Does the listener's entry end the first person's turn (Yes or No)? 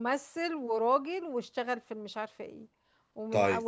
No